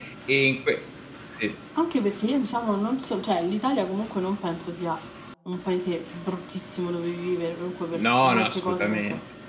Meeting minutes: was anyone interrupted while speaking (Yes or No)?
Yes